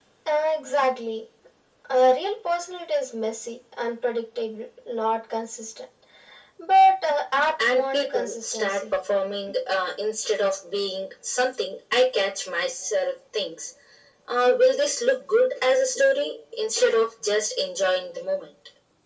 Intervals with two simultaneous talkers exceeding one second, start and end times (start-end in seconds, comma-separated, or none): 7.6-8.8